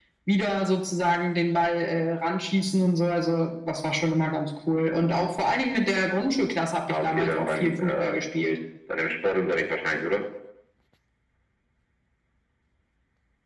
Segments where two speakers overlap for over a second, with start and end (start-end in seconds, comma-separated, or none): 6.9-8.2